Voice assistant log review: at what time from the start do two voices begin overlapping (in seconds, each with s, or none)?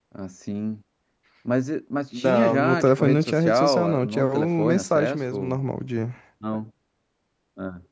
2.2 s